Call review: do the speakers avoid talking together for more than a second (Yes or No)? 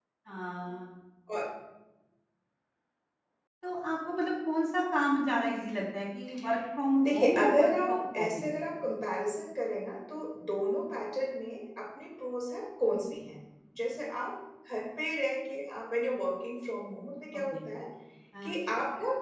No